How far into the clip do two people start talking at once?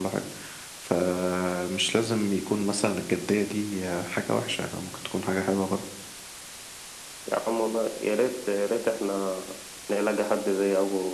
none

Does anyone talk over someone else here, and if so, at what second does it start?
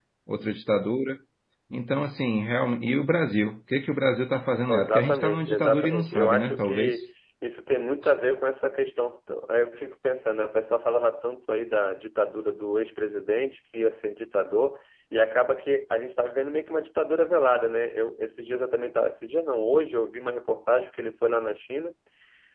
4.7 s

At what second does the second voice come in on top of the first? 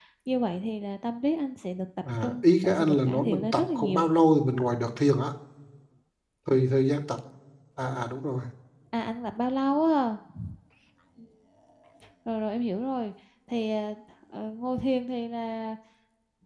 2.0 s

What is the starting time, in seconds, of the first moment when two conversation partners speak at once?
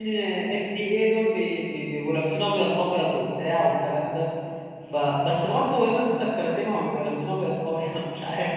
none

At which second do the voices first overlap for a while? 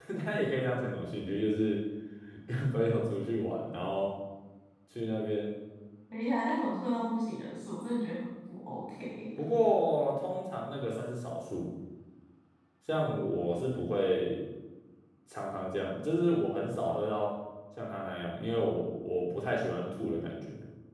none

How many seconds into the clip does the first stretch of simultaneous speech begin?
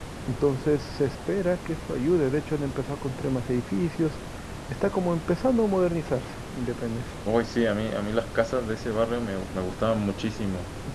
none

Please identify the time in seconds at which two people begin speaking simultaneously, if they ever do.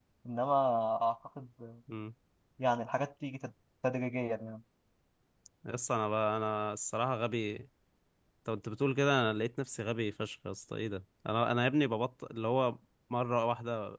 none

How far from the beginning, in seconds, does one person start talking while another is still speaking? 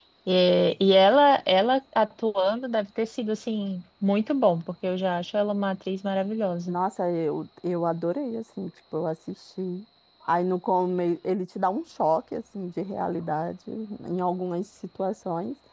none

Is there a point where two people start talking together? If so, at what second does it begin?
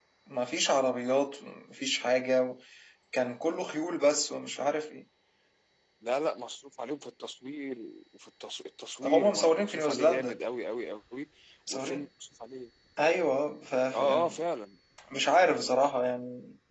9.0 s

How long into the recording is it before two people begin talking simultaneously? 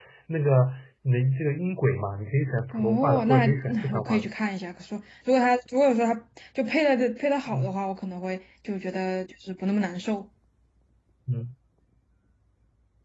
2.7 s

